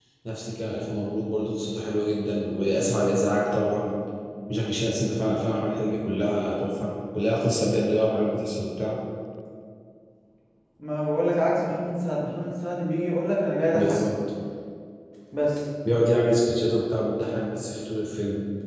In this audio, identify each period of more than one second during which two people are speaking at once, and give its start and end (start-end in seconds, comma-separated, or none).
none